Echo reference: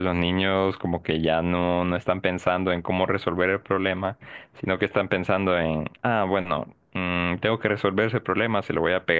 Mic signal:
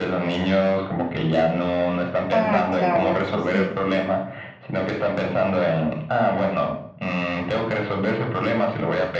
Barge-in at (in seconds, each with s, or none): 2.3 s